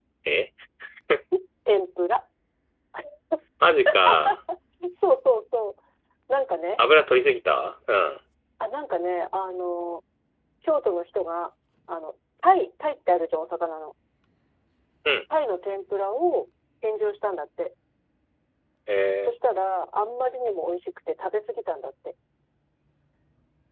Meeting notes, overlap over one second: none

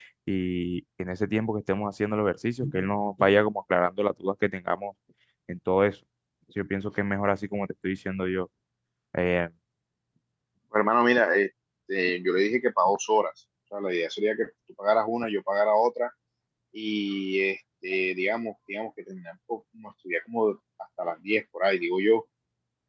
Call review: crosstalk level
none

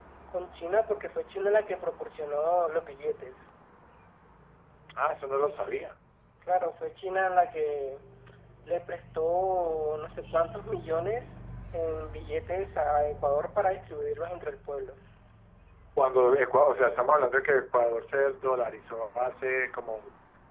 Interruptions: none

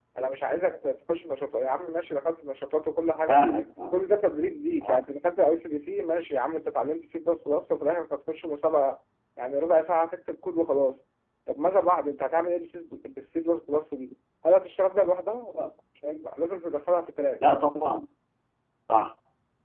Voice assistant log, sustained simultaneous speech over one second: none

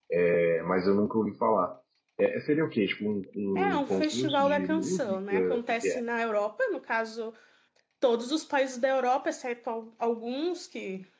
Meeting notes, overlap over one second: present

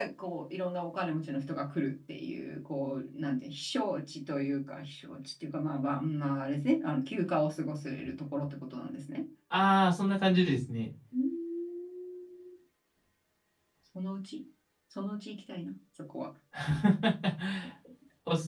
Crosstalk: none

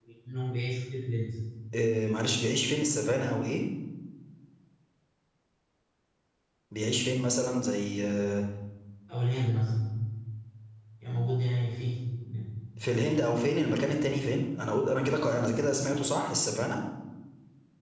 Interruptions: none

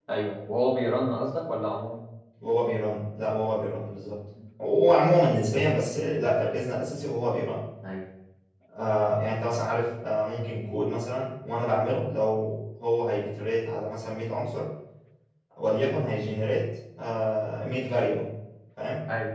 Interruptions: none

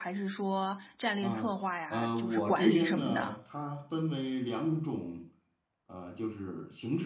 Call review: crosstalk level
present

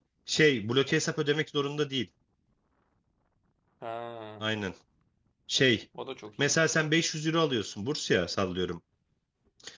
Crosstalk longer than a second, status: none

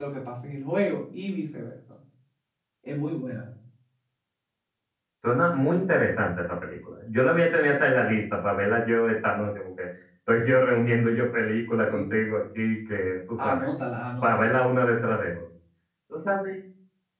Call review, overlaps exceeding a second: none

